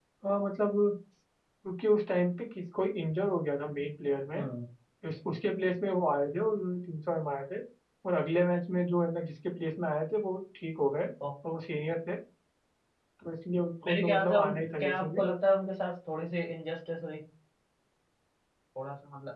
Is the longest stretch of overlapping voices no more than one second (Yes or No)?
No